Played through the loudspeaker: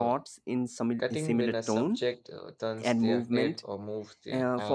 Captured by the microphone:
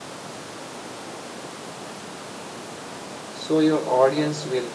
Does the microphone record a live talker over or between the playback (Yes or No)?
Yes